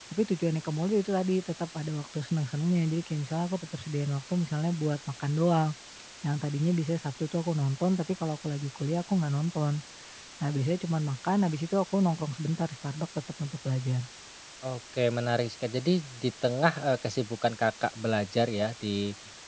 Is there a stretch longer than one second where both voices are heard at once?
No

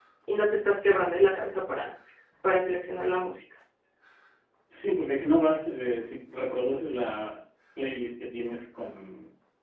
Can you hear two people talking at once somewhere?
No

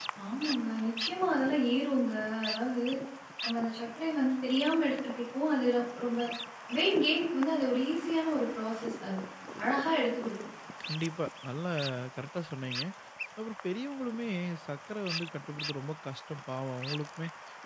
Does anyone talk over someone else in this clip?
No

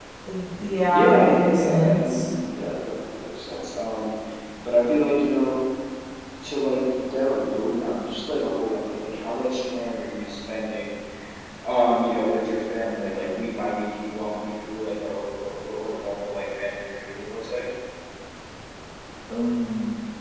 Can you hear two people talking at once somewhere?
Yes, from 0.9 s

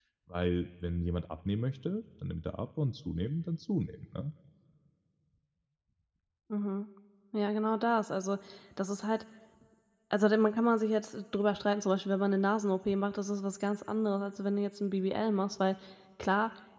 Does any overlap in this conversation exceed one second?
No

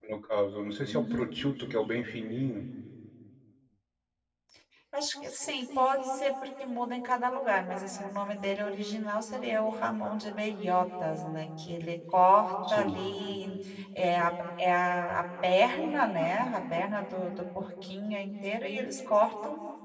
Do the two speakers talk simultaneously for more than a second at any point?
No

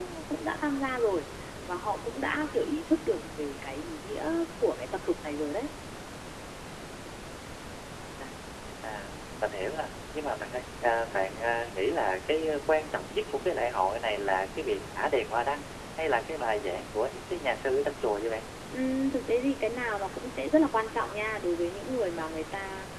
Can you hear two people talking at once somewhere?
No

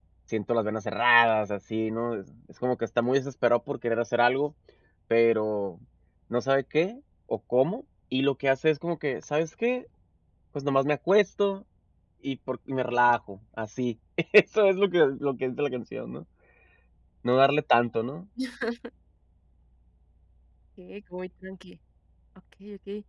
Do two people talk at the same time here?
No

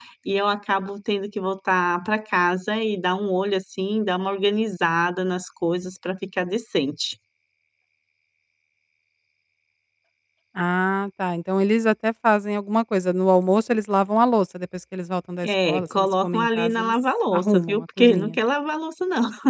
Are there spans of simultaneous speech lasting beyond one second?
Yes, from 15.4 s

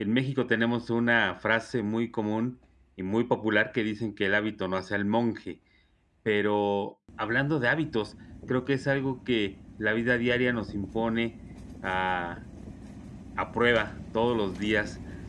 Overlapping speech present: No

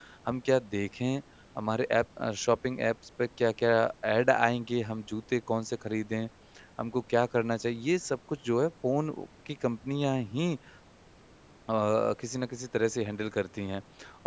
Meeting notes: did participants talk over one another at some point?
No

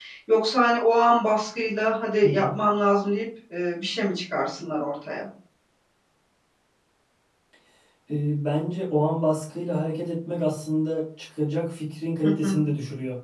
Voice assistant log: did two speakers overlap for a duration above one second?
No

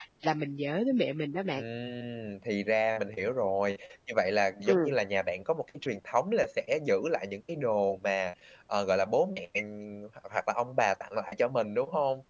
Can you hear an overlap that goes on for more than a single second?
No

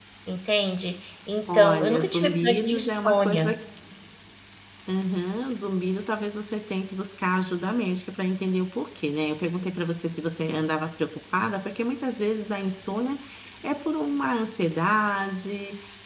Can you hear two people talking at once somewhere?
Yes, from 1.5 s

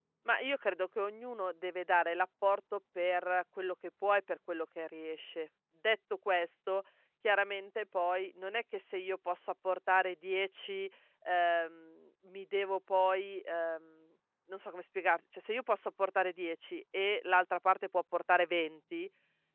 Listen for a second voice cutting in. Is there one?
No

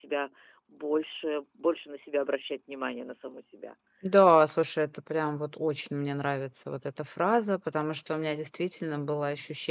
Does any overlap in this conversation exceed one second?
No

